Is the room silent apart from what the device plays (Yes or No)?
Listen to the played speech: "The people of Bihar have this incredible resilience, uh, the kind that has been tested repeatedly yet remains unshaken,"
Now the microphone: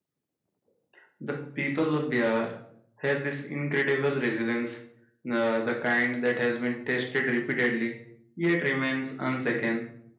Yes